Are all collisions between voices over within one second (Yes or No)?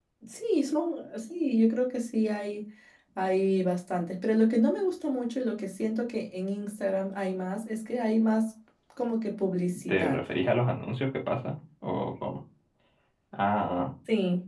Yes